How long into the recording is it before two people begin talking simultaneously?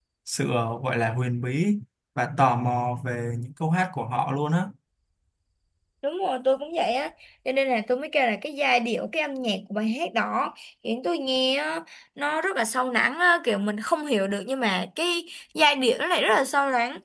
none

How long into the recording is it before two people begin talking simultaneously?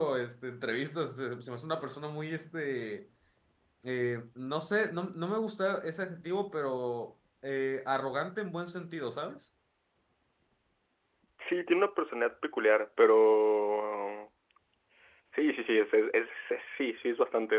none

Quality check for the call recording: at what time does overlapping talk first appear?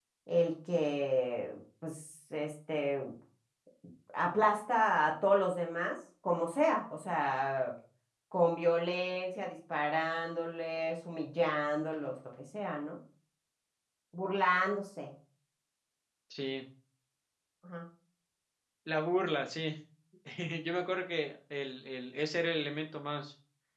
none

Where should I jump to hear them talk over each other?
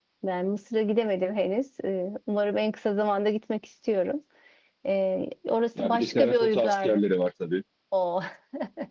5.8 s

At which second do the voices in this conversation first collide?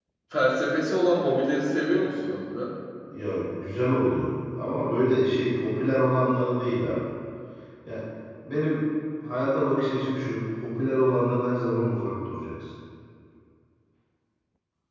none

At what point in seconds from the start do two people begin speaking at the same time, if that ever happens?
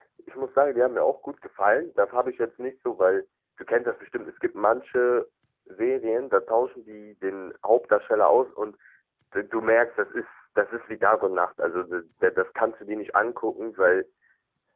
none

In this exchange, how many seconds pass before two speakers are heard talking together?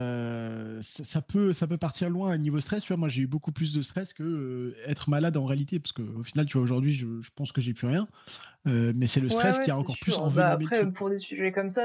9.3 s

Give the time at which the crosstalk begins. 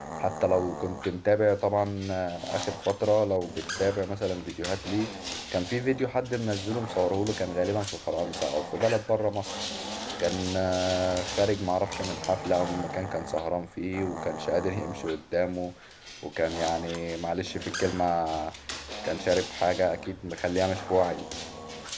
none

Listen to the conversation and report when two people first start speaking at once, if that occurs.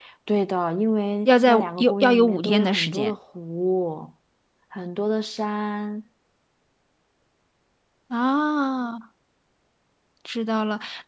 1.2 s

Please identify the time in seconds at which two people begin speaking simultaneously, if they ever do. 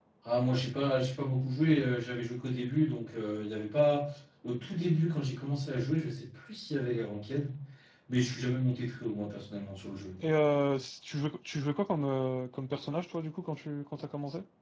none

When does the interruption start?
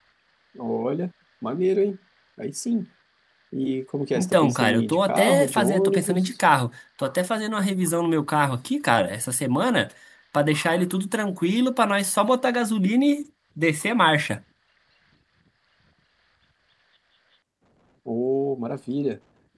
4.2 s

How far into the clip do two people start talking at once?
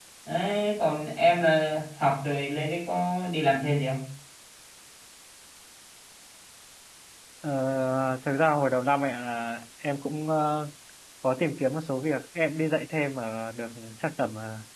none

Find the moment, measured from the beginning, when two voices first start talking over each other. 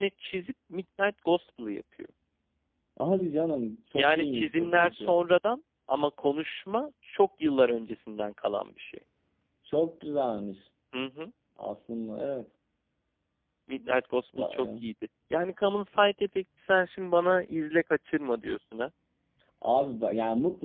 3.9 s

